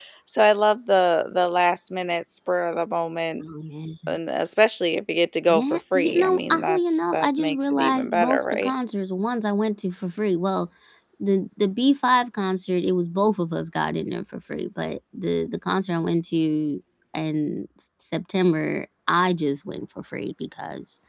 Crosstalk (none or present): present